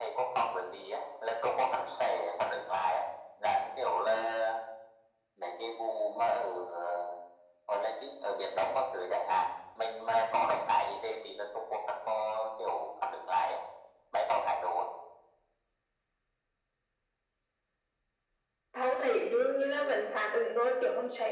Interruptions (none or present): none